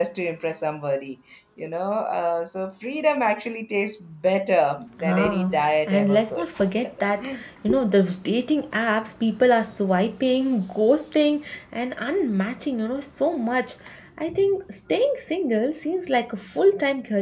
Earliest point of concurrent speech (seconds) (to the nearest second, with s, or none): 5 s